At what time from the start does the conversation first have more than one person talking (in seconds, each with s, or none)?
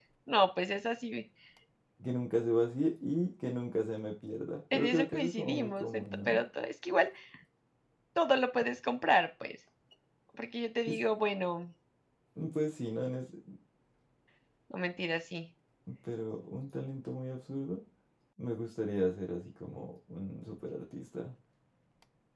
4.7 s